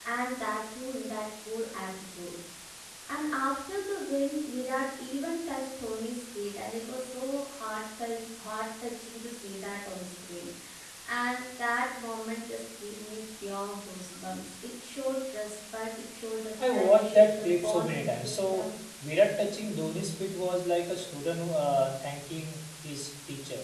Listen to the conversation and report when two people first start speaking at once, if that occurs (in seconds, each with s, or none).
16.6 s